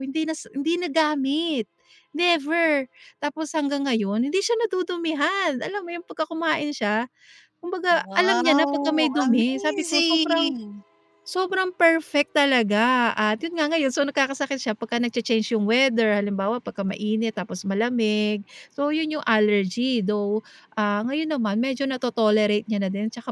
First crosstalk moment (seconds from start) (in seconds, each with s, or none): 7.9 s